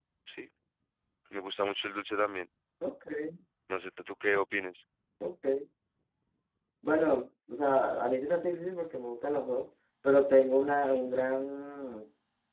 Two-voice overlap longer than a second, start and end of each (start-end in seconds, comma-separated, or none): none